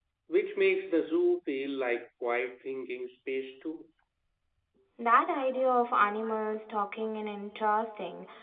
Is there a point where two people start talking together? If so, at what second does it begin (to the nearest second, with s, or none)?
none